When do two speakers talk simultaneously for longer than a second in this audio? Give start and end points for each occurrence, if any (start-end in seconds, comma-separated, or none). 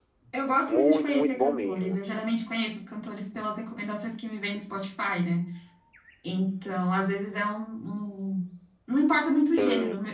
0.7-2.0